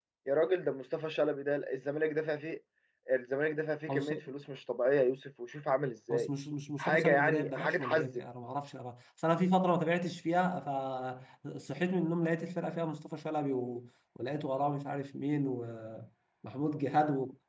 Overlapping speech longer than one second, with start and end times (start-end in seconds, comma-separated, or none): 6.8-8.1